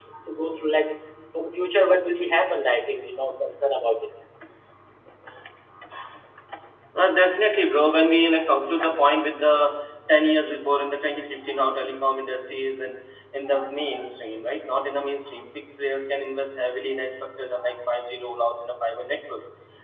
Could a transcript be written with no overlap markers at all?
Yes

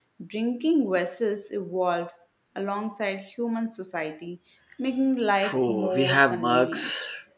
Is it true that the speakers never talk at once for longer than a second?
No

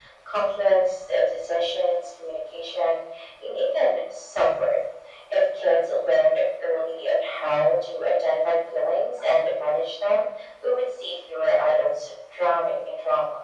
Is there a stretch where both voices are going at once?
No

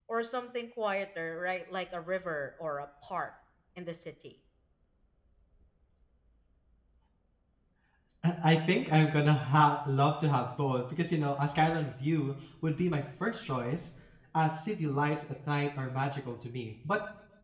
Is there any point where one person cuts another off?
No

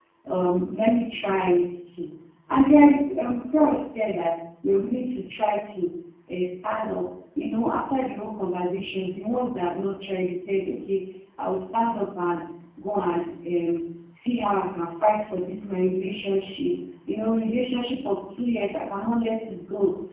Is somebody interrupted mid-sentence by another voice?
No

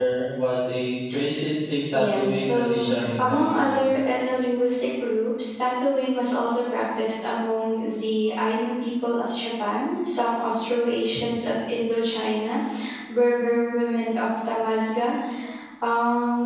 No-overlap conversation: No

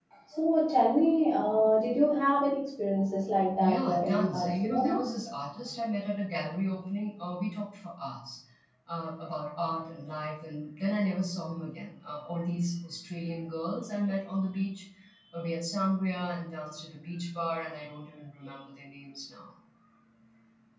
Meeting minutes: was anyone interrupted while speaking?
Yes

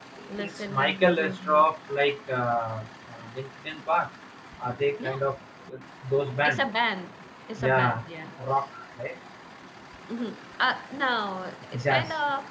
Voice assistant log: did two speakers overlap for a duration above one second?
Yes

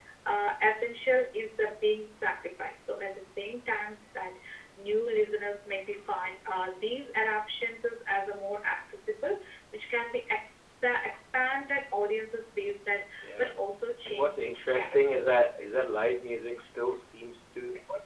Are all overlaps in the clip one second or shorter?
No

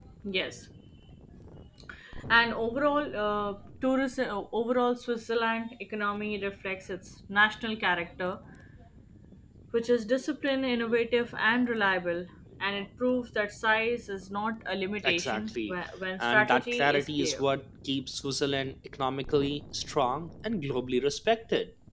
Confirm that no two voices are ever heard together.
No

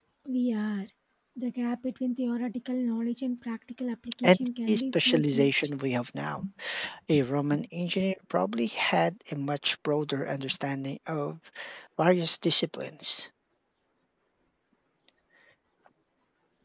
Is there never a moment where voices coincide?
No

